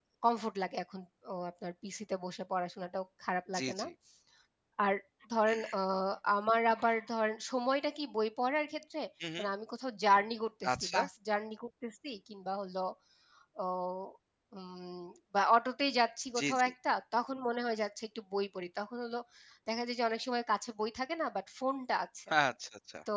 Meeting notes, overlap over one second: none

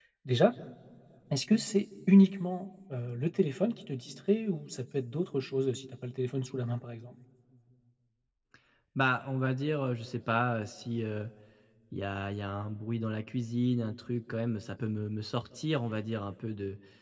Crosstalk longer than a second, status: none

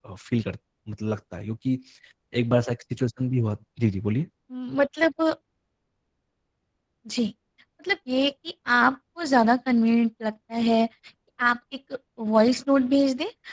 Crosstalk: none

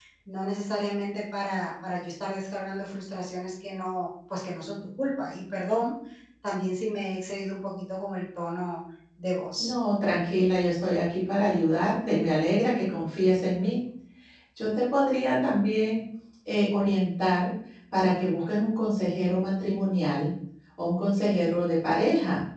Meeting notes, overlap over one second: none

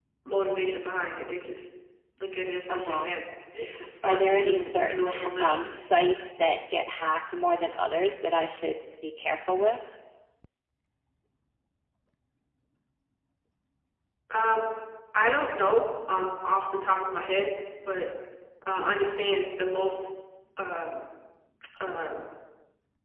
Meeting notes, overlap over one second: present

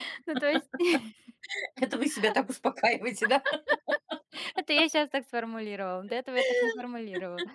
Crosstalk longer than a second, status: none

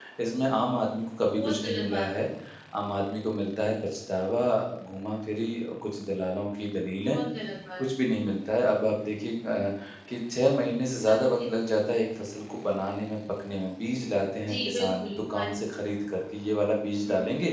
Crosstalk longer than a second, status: present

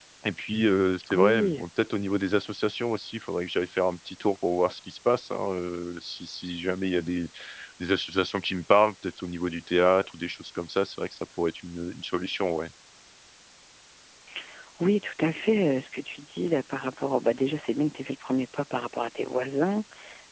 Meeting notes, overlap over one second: none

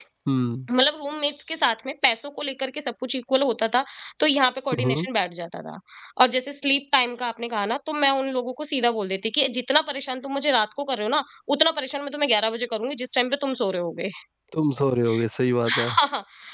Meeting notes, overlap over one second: none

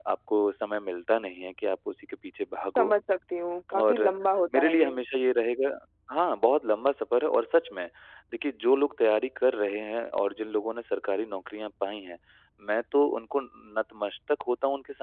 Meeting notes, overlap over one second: none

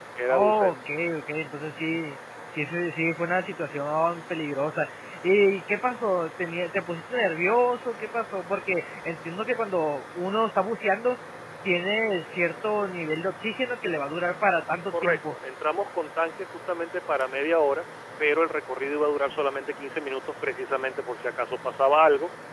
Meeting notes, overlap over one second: none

